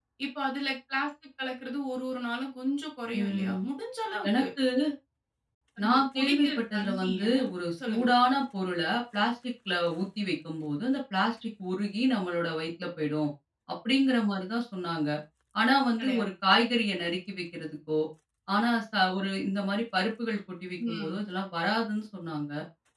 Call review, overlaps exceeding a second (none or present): present